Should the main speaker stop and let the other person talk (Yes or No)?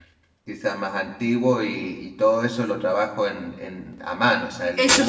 Yes